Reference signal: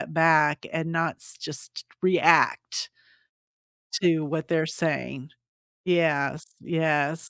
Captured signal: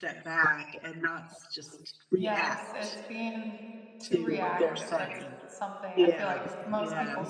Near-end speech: present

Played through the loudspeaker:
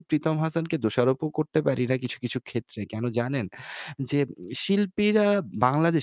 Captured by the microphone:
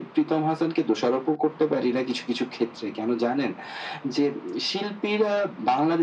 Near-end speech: none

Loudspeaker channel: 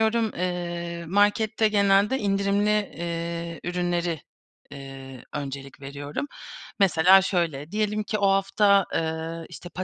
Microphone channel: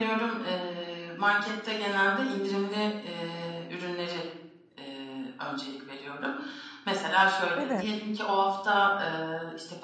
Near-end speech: present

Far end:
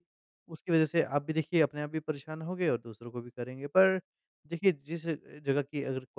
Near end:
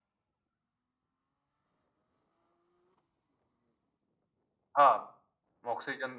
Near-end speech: present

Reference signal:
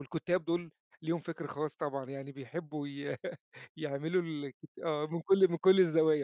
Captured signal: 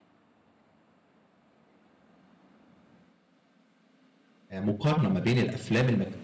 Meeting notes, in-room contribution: present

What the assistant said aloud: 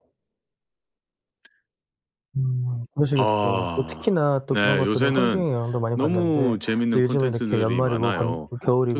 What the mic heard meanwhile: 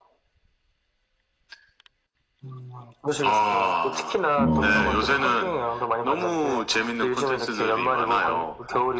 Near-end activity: present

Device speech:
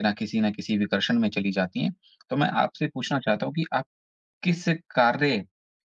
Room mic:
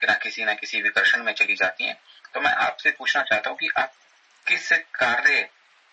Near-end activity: none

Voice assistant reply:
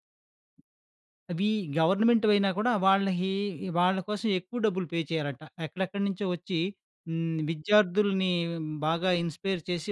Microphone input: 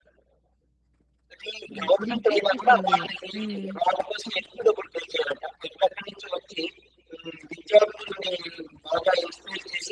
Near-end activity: present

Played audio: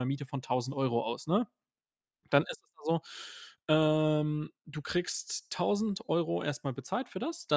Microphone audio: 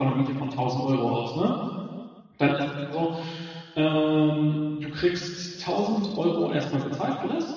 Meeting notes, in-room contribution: none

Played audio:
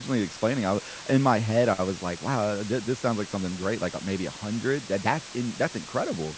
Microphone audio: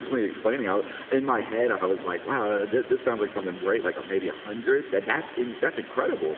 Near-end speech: none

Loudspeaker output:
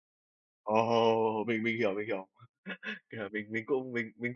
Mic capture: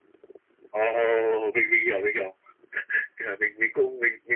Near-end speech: none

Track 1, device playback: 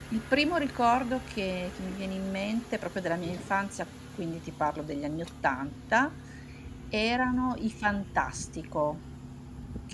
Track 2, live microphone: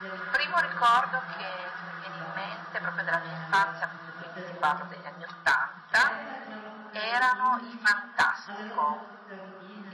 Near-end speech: present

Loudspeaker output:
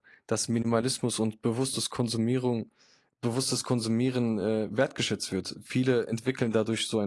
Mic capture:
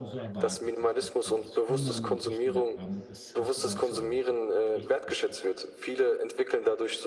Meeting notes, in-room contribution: present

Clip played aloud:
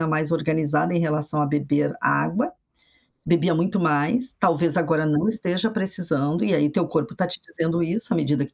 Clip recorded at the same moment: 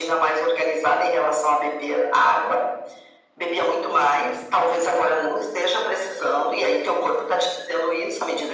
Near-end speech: none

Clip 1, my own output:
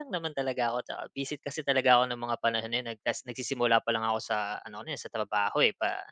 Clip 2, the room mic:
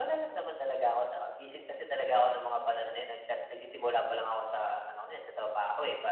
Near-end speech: none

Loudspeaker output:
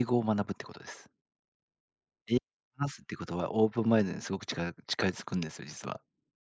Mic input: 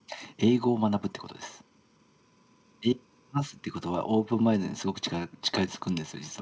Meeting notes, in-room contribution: none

